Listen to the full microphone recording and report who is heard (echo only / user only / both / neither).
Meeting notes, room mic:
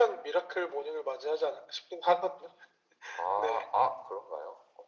echo only